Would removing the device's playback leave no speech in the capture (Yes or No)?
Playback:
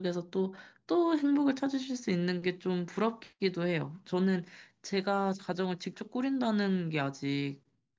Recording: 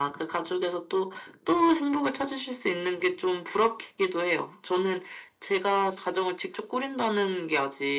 Yes